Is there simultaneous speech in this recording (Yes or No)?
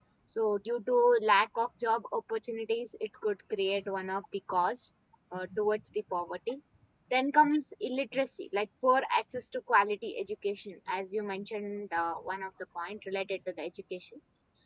No